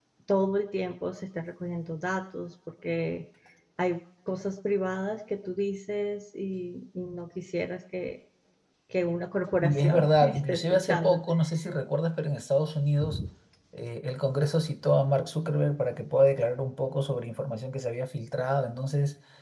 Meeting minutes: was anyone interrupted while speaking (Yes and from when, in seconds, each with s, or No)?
Yes, from 9.6 s